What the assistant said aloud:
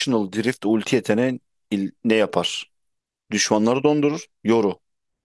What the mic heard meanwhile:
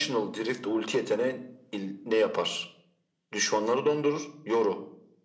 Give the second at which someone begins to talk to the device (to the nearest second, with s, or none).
none